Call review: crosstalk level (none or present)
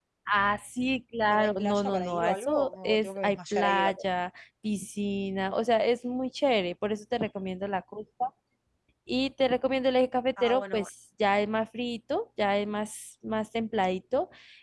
present